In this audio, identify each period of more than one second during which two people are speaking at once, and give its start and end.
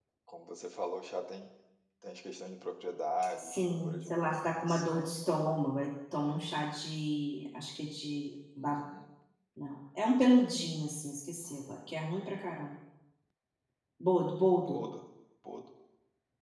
3.4-4.9

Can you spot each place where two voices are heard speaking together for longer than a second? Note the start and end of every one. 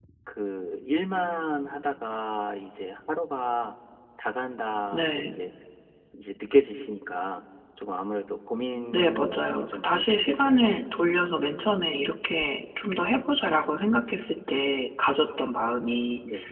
8.9-10.8

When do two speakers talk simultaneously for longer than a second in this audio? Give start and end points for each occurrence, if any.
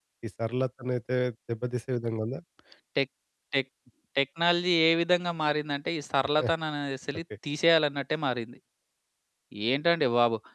none

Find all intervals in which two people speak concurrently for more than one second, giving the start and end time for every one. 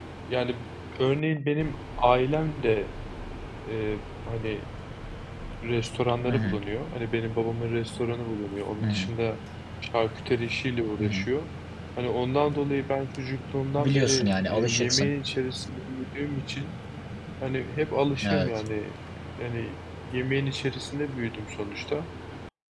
13.8-15.1

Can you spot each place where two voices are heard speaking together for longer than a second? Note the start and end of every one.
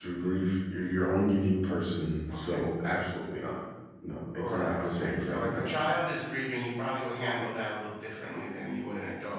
4.3-5.8

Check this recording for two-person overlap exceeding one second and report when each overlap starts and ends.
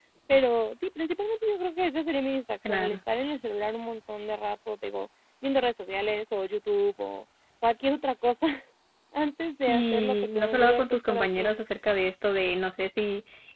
9.7-11.6

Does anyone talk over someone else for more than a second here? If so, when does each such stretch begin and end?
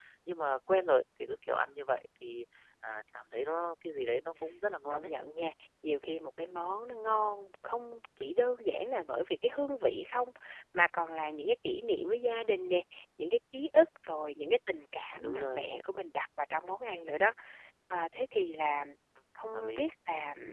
none

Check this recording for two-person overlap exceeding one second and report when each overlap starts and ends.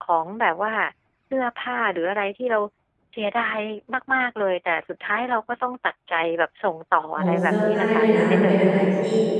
7.2-8.6

